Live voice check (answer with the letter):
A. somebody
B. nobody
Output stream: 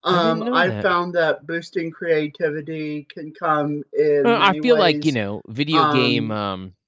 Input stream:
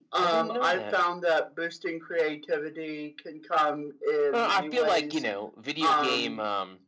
B